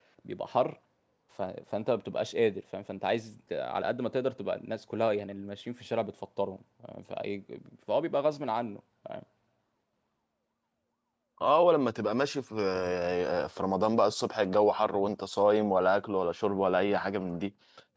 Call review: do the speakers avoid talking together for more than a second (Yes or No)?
Yes